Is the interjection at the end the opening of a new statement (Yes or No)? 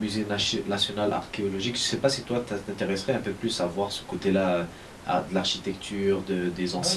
Yes